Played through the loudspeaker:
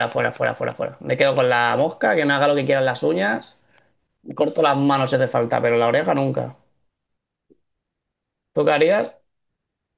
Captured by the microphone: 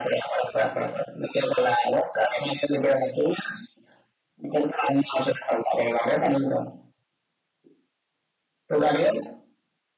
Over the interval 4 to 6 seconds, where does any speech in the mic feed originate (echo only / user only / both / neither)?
echo only